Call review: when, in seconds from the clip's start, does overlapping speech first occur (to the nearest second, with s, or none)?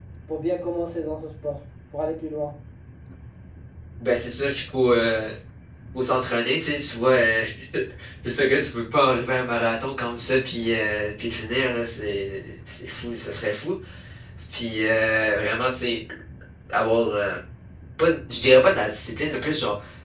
none